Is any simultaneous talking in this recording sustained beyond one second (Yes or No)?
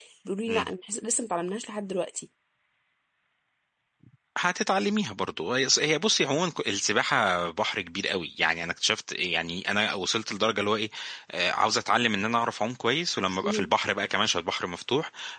No